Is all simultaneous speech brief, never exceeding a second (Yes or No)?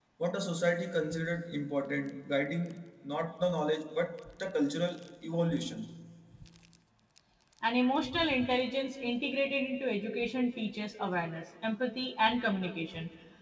Yes